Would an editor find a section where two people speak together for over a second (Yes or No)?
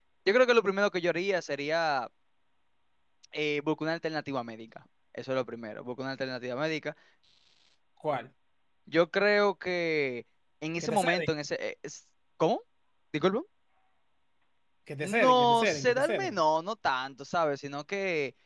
Yes